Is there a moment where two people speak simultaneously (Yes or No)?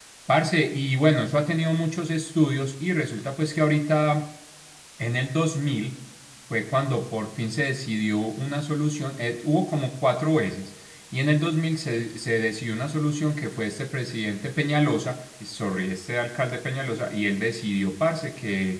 No